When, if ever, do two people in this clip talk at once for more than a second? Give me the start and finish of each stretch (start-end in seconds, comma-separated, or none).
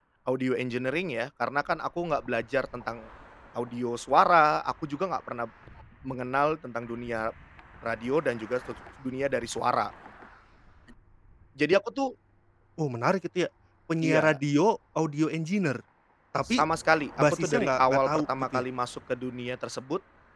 17.2-18.6